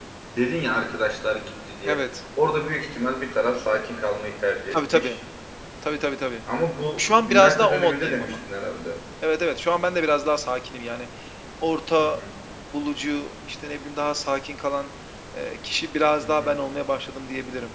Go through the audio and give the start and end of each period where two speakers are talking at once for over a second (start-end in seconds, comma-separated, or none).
7.0-8.3